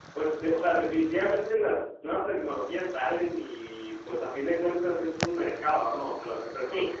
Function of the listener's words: listening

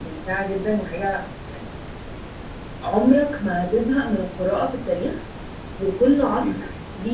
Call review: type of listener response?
listening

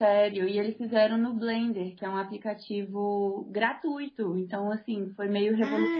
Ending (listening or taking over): taking over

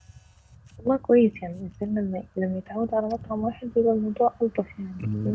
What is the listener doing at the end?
taking over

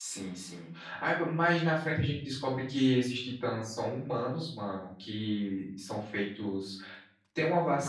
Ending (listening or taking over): listening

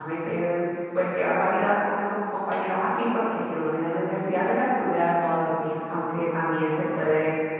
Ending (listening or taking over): listening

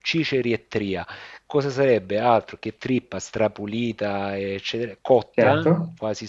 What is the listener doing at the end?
listening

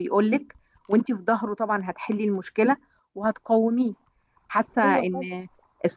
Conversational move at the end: listening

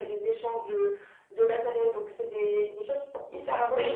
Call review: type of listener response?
taking over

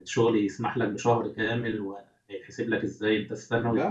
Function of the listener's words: taking over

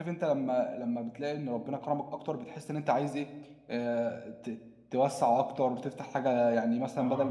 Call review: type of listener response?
listening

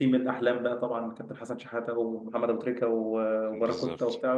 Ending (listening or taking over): listening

